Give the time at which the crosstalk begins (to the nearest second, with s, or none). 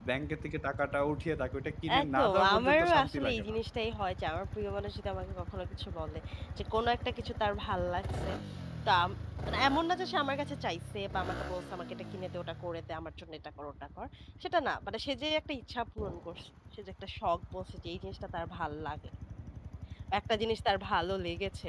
2 s